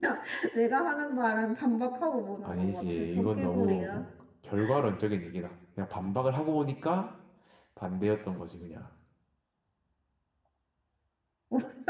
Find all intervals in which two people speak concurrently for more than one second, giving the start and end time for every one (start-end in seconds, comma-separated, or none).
2.5-3.9